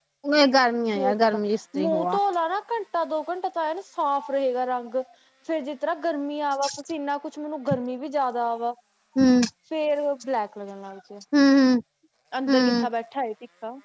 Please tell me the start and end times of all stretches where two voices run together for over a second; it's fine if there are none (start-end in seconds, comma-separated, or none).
none